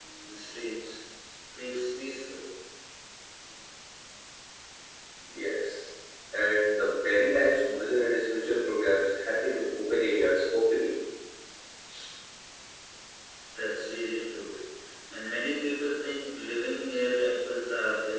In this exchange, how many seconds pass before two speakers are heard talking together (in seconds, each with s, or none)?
none